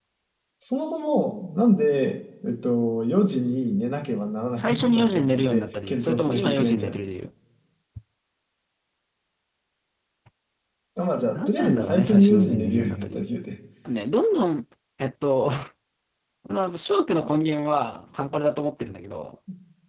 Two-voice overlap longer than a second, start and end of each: 4.6-7.0, 11.3-13.3

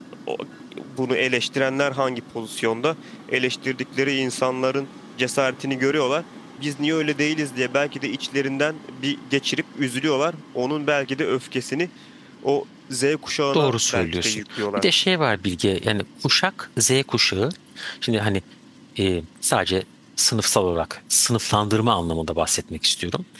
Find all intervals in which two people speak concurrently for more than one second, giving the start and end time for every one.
13.5-14.8

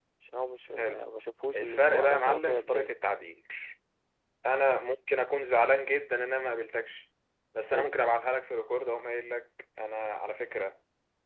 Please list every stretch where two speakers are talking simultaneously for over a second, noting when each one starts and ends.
1.5-2.9

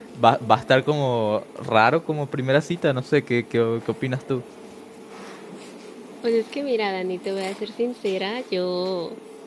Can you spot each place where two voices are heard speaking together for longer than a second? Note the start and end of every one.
none

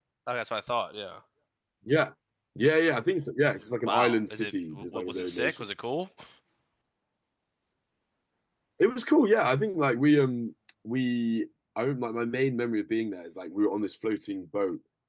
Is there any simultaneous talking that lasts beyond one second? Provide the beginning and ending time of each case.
3.9-5.6

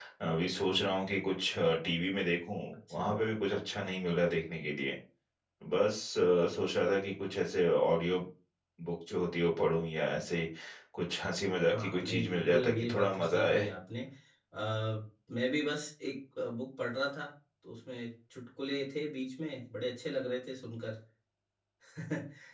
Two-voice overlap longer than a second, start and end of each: 11.7-13.6

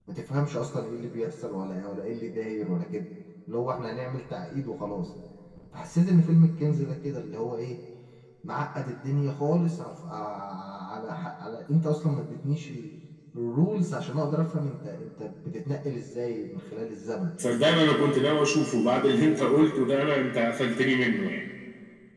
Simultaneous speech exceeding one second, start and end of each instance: none

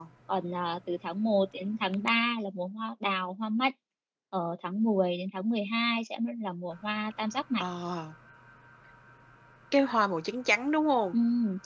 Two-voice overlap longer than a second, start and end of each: none

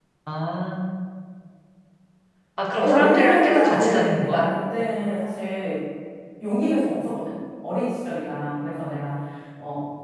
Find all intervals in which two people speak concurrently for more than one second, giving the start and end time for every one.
2.8-4.4

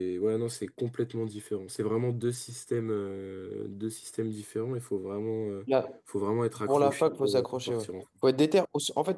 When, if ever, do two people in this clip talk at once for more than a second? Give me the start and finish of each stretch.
6.7-7.9

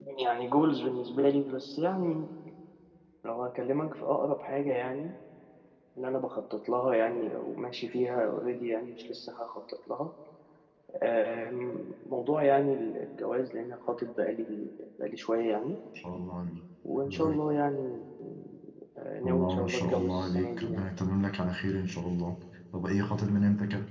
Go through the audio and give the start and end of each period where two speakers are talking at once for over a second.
19.2-20.9

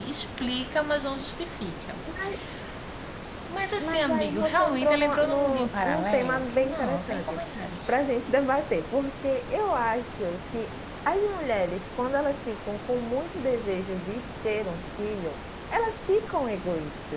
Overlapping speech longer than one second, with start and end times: 3.8-7.4

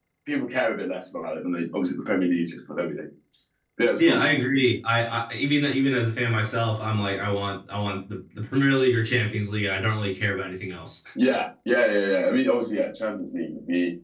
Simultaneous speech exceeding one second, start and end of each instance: none

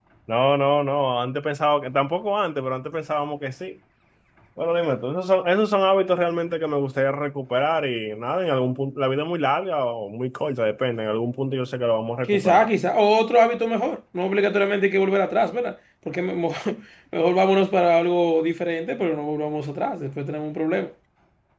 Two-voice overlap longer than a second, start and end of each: none

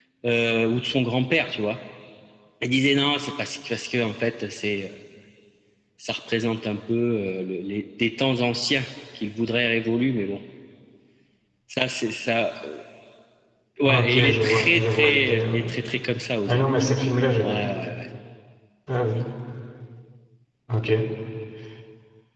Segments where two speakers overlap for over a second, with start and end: 13.8-15.6

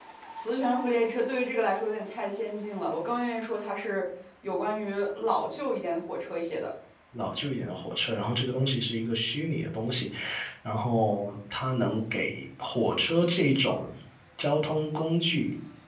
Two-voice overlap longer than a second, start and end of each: none

